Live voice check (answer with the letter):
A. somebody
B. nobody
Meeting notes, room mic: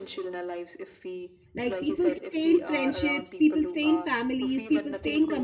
A